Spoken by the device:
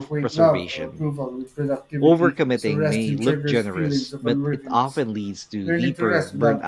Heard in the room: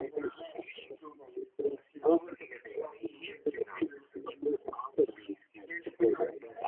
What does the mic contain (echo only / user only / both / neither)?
echo only